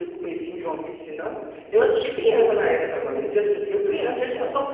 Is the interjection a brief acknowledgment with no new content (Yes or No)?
Yes